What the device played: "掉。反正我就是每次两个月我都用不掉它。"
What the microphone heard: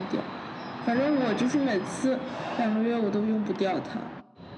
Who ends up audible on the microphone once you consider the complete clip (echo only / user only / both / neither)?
echo only